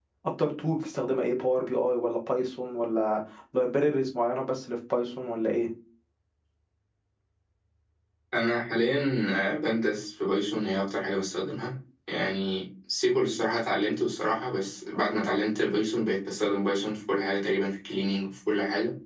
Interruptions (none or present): none